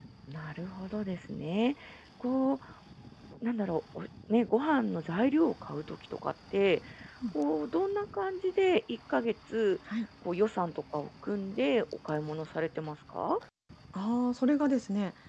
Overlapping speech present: No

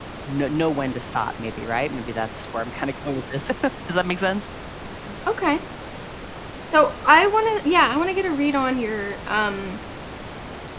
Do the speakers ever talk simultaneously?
No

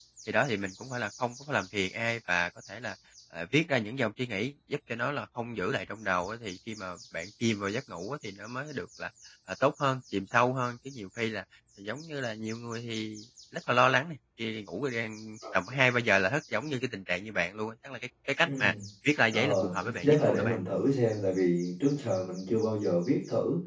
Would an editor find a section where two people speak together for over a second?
Yes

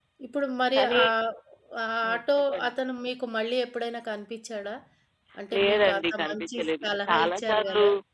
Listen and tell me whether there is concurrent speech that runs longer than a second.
Yes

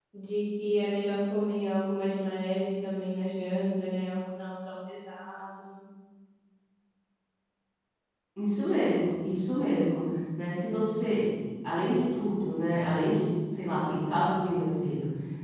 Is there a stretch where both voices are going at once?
No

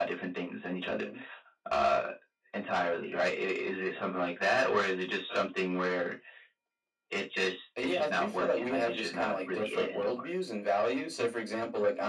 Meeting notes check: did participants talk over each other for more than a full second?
Yes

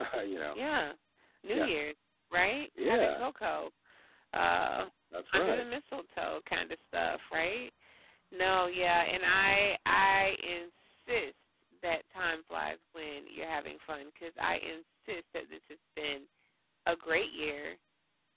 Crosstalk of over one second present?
No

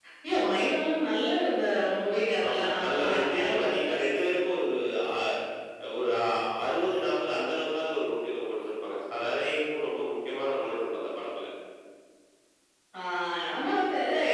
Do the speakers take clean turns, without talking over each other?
No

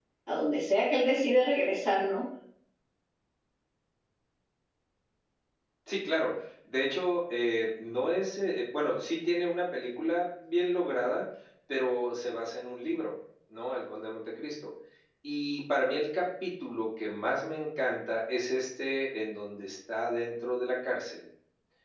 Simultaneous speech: No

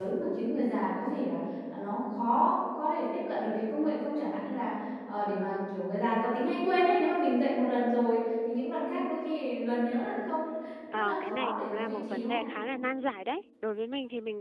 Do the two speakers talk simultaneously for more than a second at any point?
Yes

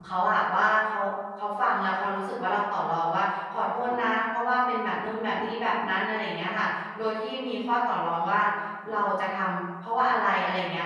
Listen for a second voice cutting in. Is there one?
No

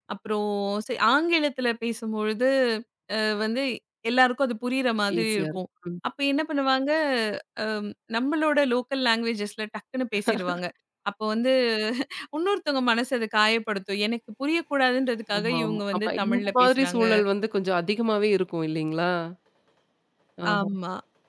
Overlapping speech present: Yes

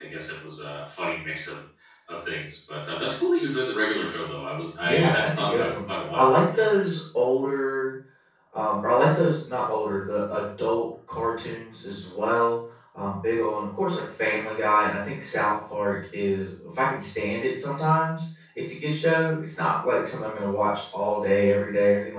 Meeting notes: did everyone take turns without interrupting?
No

